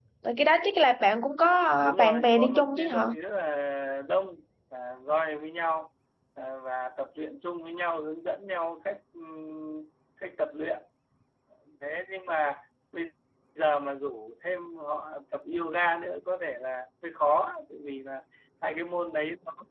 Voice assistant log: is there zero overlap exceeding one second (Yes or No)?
No